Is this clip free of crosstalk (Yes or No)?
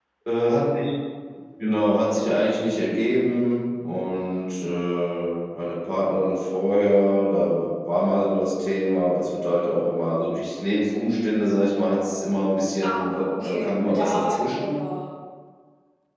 No